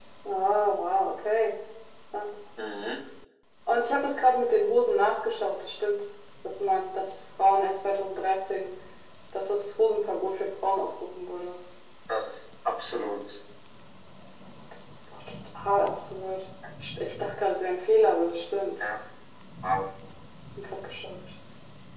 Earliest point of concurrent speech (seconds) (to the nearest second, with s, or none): none